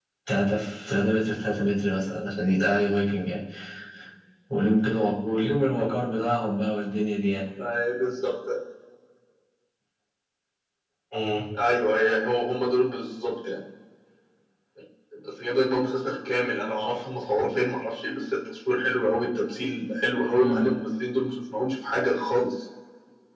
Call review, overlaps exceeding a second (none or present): none